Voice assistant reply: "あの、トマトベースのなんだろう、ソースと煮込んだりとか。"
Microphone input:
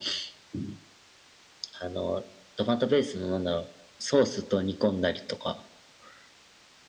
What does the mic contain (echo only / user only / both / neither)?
echo only